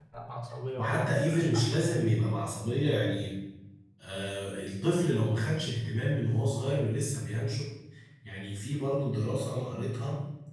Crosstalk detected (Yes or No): Yes